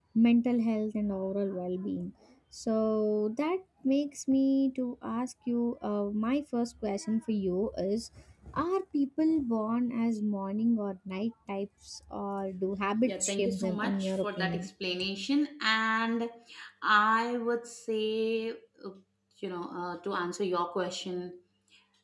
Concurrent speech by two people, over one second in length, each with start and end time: 13.1-14.7

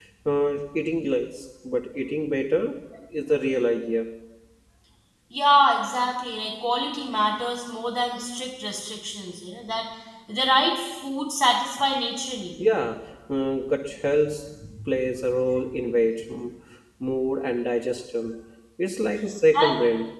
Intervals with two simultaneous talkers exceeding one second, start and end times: none

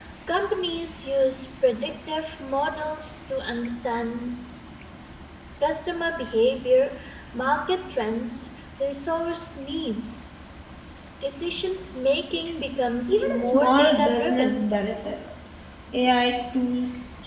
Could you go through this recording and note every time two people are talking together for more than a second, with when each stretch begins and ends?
13.1-14.6

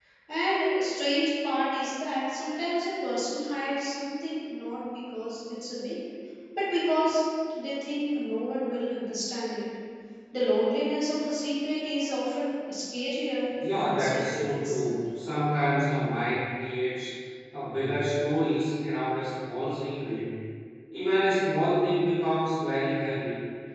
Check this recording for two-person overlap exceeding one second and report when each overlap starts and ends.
13.7-14.9

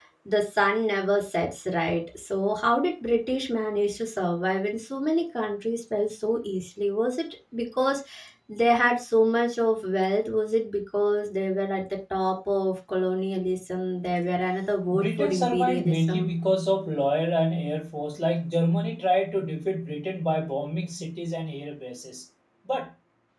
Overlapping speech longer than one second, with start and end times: 14.9-16.3

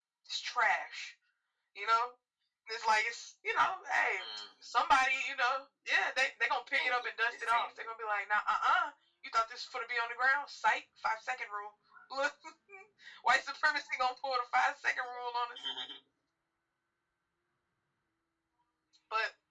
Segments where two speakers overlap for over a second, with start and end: 6.7-8.0

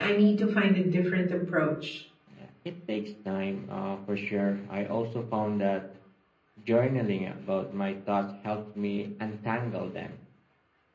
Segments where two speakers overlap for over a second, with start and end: none

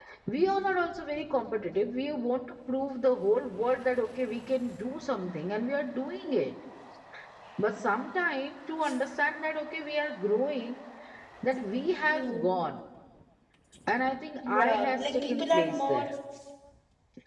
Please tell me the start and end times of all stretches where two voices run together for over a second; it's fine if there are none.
14.4-16.1

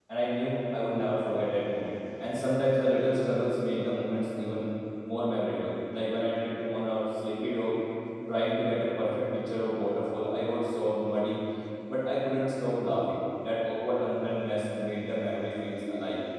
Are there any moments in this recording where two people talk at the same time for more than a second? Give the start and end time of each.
none

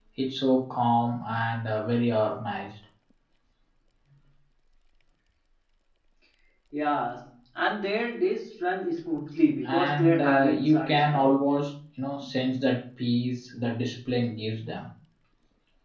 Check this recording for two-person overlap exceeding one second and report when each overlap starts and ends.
9.7-11.3

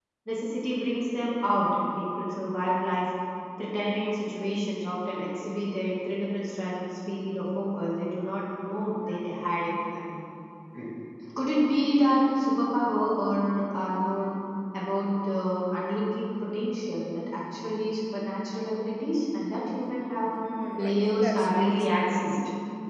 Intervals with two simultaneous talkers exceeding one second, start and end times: 20.8-22.4

